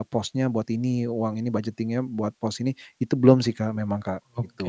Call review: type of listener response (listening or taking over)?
taking over